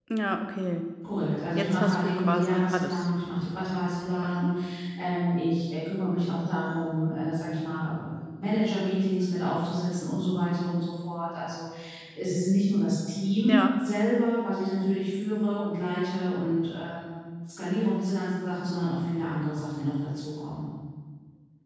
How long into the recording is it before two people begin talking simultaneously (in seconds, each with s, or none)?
1.6 s